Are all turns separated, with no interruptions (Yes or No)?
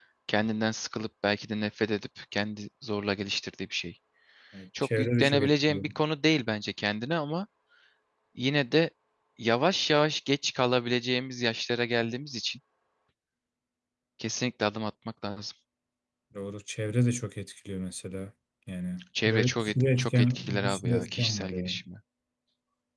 No